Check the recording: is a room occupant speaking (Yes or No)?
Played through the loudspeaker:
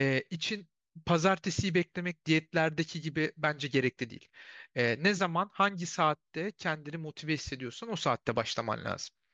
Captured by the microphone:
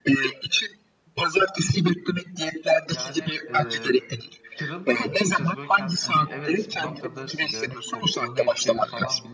Yes